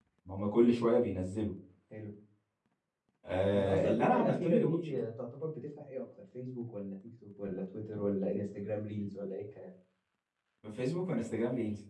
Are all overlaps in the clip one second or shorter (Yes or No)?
No